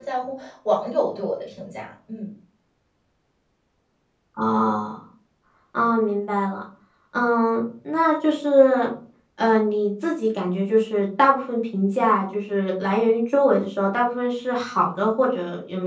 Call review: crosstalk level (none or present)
none